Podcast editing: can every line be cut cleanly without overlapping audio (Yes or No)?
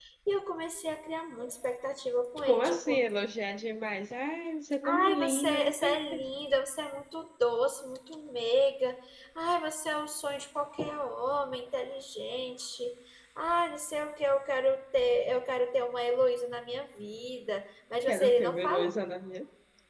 No